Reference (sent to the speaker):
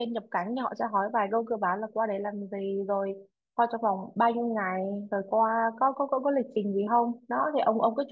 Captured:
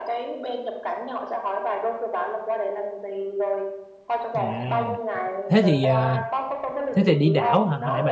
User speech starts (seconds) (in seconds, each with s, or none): 4.3 s